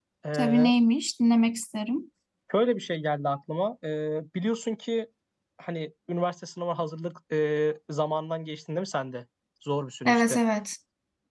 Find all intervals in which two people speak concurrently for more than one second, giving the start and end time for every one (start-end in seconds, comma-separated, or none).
none